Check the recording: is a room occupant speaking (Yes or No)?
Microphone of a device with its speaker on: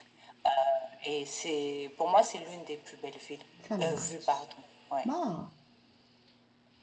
Yes